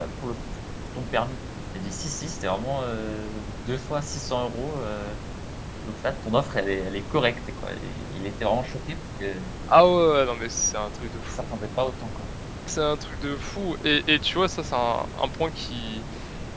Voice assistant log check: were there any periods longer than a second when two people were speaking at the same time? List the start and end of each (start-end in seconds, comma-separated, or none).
none